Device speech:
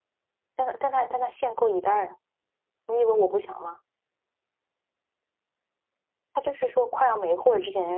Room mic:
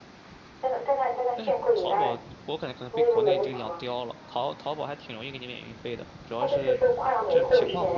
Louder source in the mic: echo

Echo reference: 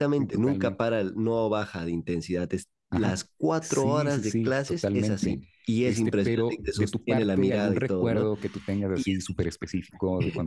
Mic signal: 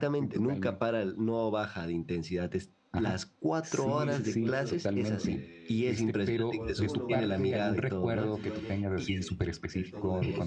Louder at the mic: echo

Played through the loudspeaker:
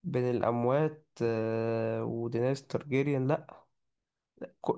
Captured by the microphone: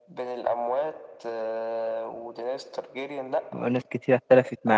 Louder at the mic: user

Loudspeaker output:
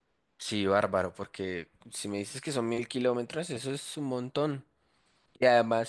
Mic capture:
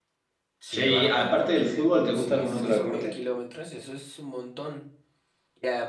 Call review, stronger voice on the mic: user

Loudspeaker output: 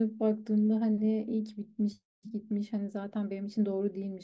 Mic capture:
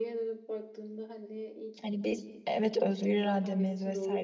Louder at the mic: user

